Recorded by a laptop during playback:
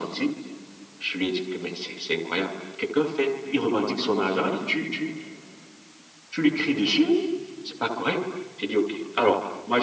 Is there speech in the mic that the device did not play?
No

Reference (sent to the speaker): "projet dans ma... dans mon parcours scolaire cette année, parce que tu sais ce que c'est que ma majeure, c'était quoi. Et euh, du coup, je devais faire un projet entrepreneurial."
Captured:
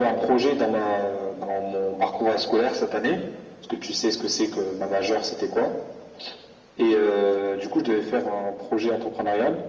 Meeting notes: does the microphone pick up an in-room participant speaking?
No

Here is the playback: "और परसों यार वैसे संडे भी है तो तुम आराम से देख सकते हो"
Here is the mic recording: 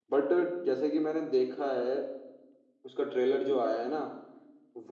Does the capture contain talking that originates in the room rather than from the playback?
Yes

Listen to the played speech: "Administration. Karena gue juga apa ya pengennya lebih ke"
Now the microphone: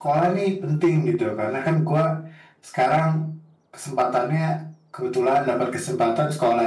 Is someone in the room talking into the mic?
Yes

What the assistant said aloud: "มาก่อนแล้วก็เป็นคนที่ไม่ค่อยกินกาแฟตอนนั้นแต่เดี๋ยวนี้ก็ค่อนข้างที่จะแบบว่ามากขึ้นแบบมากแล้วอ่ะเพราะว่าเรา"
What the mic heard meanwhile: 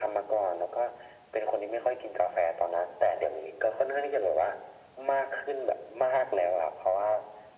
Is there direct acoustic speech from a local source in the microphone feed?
No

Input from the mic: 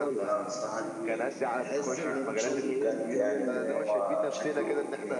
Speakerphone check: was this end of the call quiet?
No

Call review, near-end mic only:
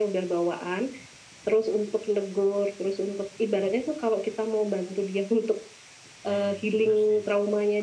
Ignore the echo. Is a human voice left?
Yes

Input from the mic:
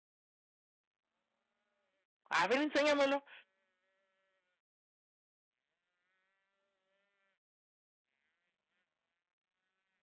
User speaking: Yes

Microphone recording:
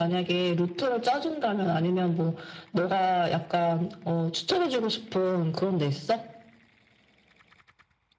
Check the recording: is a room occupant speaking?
No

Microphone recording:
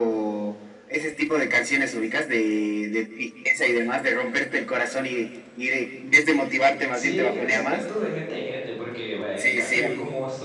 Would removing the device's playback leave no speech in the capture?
No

